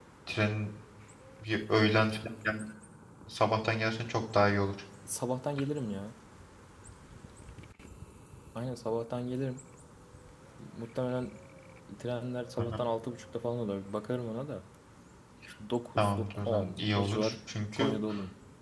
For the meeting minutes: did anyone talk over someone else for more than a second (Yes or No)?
Yes